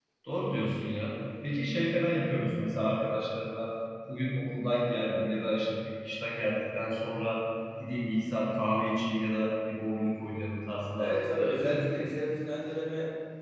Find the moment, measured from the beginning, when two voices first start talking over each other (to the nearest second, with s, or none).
11 s